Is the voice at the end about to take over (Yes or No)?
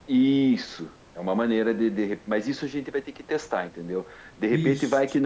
No